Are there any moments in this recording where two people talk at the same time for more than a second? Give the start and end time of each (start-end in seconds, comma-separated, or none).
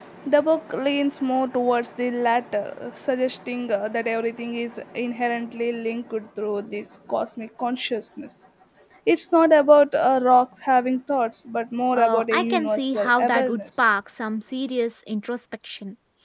11.9-13.7